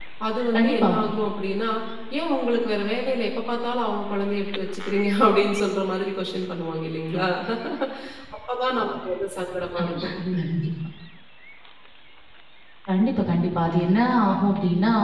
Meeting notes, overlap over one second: none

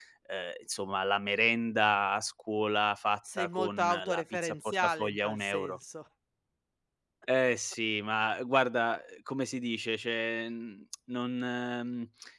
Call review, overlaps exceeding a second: present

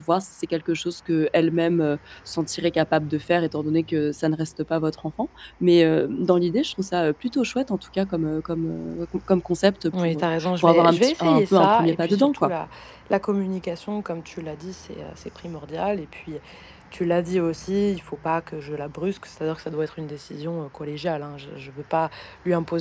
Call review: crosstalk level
present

